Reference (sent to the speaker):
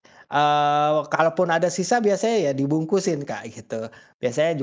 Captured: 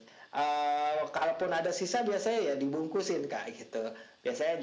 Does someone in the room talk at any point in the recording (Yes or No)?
No